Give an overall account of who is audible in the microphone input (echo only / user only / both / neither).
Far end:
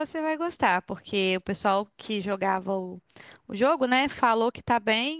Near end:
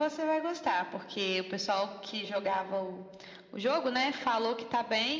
echo only